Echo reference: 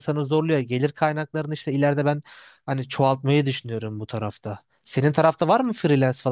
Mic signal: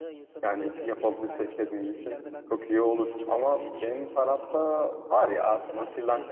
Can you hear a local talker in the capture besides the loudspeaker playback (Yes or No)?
Yes